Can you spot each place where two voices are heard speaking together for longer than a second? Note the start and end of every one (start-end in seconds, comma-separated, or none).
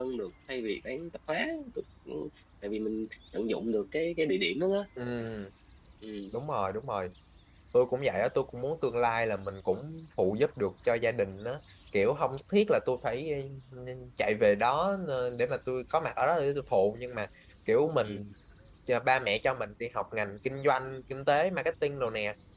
none